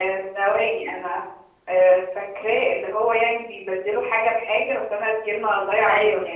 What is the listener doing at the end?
taking over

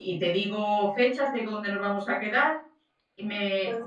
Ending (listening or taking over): listening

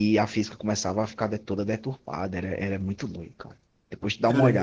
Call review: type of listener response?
taking over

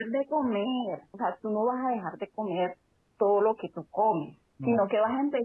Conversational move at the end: listening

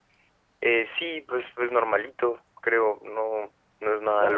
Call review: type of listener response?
taking over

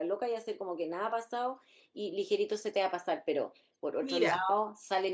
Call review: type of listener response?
listening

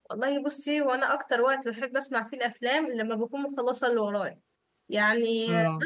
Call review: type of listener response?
listening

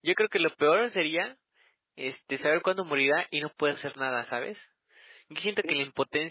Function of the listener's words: listening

